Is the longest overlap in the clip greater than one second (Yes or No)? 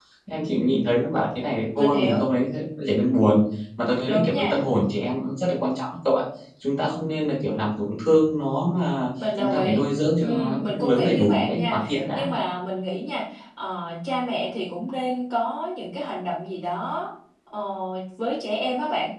Yes